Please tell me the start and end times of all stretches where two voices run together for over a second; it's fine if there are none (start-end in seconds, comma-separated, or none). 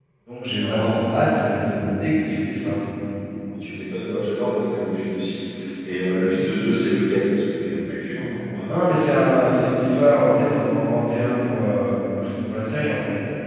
8.7-9.9